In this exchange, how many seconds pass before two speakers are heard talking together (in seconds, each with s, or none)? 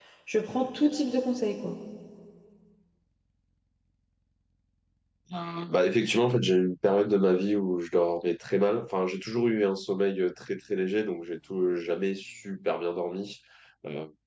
none